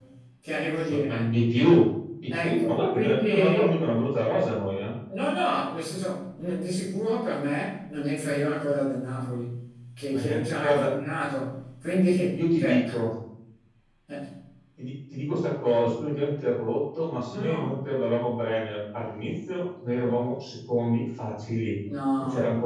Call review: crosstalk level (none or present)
present